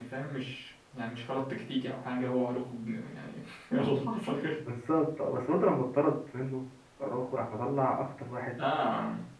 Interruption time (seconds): none

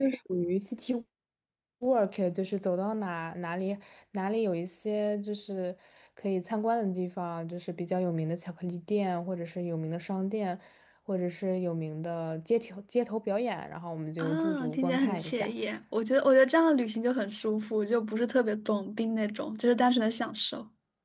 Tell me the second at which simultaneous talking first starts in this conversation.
14.2 s

